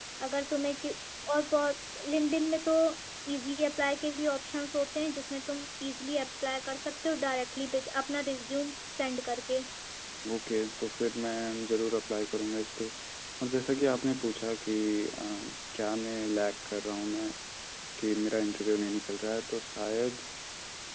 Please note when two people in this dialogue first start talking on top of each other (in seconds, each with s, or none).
none